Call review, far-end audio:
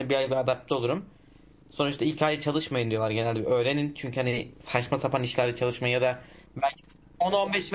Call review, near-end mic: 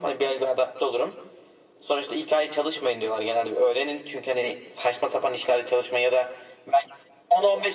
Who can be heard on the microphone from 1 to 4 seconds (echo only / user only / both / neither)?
echo only